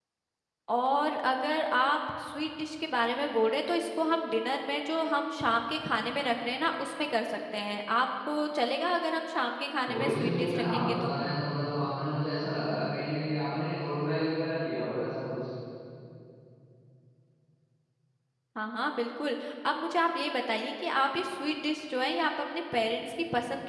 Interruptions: present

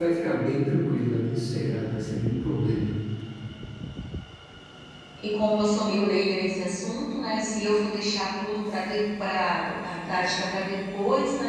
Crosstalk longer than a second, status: none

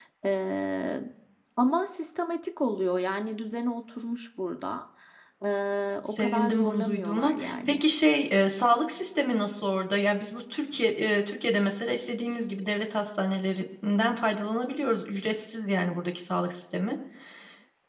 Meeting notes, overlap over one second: present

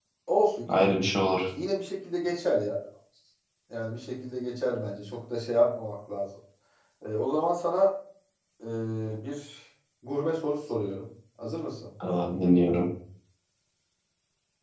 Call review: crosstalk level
none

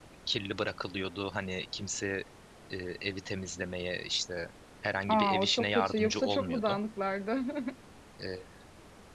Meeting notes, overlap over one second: present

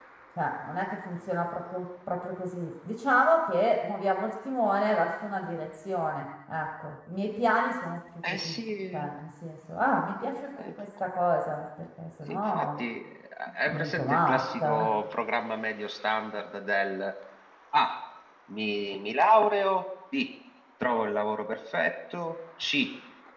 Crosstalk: present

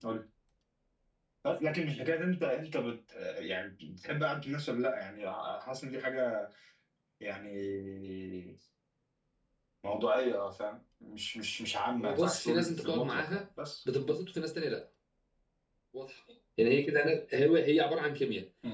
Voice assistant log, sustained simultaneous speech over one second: present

